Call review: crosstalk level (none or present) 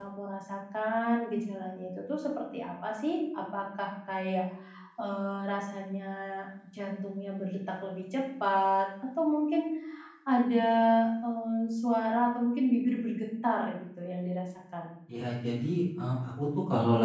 none